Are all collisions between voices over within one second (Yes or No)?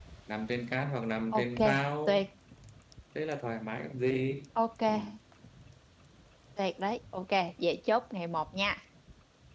Yes